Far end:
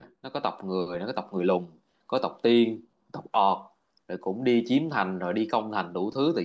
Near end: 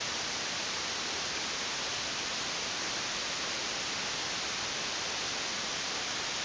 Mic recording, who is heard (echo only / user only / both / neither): neither